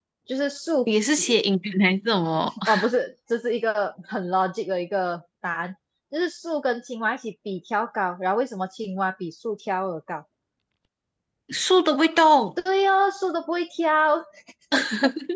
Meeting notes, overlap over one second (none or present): none